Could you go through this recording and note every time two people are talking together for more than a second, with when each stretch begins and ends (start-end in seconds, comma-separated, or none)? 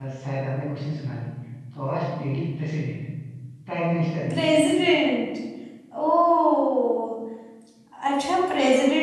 none